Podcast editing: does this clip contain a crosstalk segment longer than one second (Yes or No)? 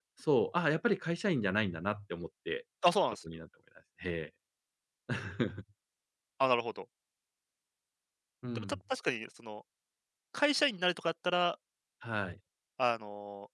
No